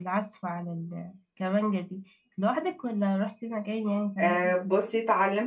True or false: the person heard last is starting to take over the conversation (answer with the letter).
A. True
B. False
A